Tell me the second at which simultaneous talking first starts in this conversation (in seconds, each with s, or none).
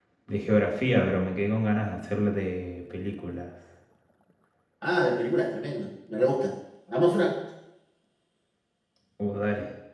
none